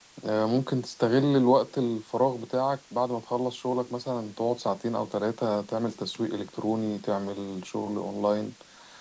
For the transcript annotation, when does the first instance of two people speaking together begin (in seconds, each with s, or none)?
none